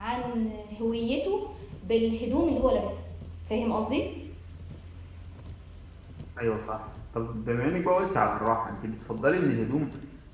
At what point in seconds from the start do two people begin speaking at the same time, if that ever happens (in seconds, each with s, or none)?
none